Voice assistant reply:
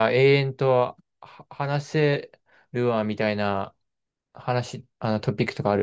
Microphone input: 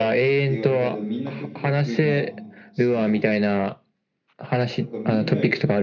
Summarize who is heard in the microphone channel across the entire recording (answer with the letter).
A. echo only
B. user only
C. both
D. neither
C